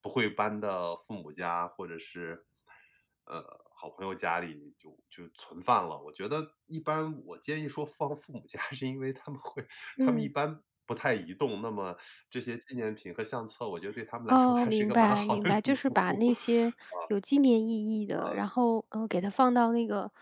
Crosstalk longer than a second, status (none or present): present